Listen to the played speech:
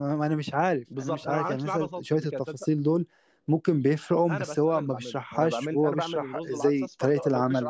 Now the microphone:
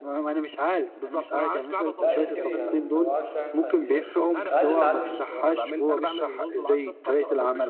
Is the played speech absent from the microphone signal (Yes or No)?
No